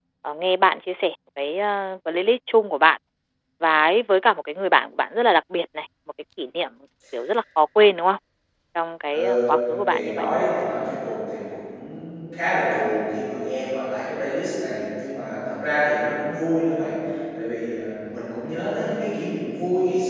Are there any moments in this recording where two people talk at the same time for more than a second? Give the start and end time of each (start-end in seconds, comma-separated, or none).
none